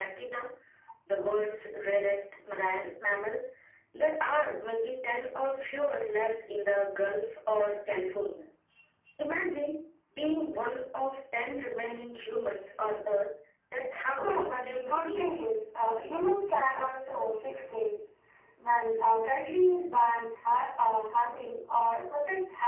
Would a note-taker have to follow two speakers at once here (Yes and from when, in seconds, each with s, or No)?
Yes, from 14.2 s